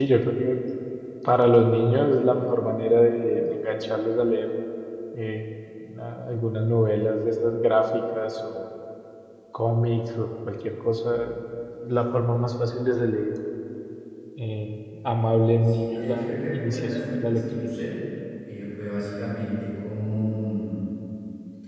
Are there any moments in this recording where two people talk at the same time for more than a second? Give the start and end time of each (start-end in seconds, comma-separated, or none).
15.6-17.7